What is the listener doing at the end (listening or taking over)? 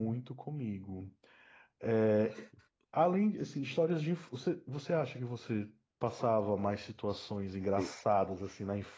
listening